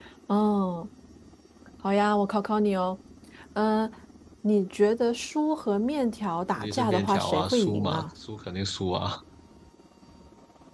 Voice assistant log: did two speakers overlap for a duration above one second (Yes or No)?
Yes